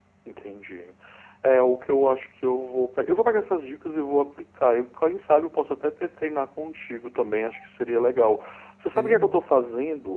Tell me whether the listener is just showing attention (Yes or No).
Yes